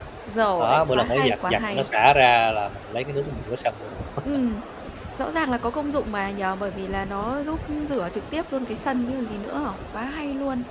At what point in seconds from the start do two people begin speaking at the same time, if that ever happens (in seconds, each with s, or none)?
0.6 s